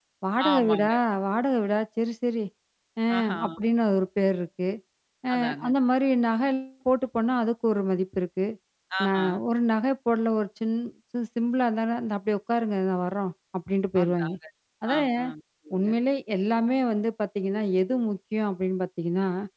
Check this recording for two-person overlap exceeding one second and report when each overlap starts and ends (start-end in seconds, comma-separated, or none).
none